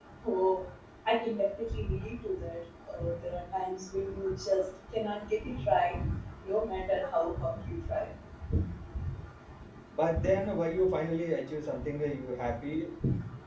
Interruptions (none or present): none